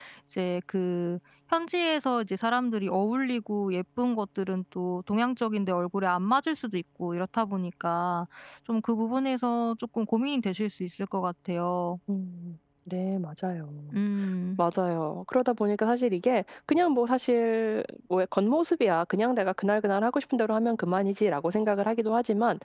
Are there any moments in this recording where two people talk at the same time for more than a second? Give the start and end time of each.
none

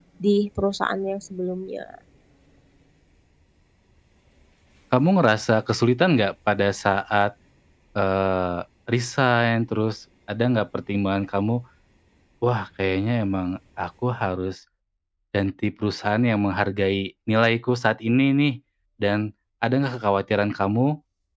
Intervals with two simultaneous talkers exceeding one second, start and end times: none

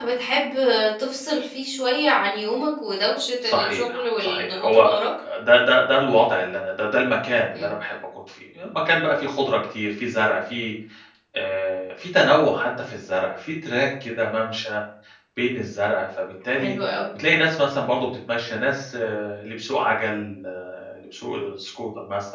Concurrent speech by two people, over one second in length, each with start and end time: 3.4-5.0

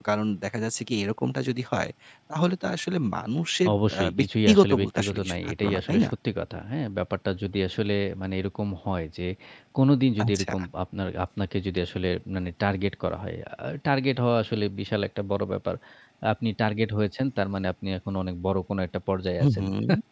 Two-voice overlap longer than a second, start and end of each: 3.9-6.1

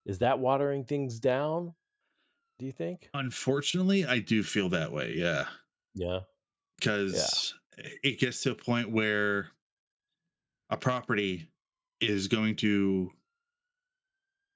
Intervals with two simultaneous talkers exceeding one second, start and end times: none

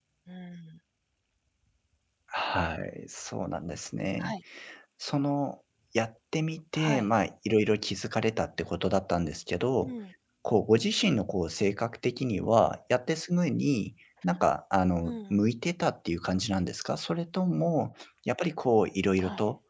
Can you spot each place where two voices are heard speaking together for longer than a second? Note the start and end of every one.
none

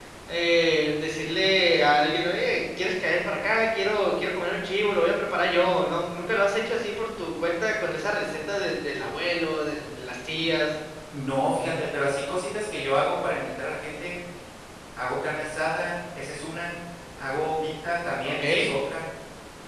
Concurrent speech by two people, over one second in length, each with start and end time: none

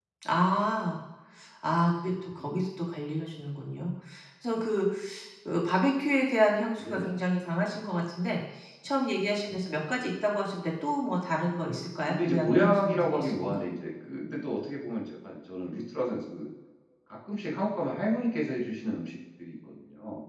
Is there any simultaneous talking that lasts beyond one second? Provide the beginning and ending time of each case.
12.1-13.6

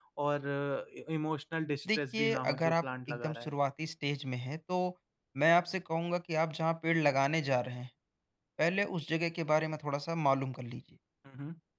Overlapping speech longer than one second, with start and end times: 1.9-3.5

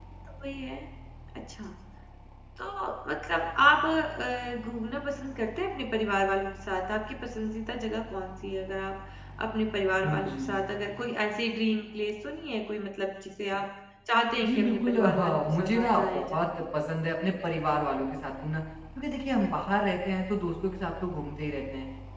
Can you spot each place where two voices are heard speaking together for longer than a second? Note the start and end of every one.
14.4-16.6

